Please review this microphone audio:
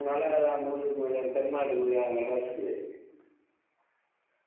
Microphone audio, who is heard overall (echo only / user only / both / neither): echo only